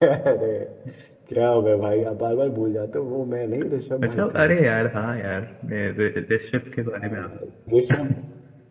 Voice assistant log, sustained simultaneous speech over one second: none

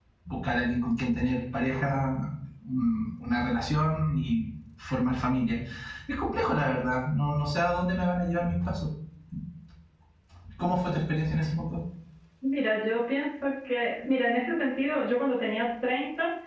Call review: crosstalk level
none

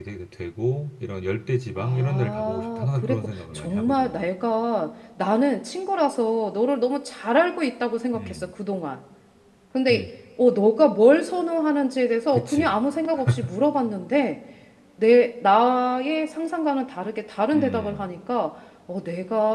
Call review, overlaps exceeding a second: present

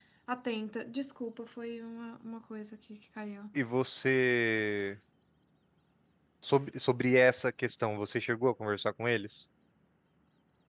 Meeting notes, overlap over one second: none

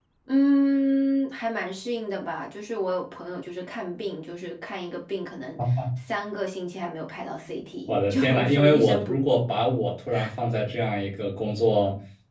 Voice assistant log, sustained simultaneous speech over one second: present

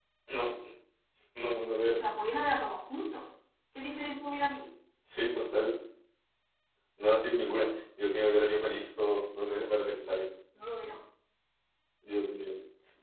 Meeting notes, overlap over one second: none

